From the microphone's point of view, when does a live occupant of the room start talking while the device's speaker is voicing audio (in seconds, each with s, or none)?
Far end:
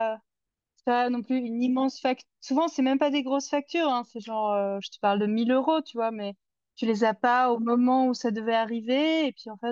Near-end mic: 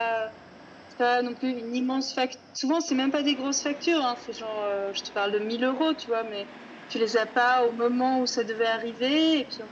none